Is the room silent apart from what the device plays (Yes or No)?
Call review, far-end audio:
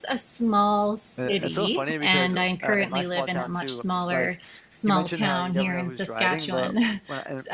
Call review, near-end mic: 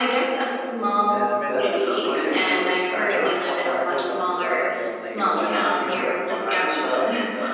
No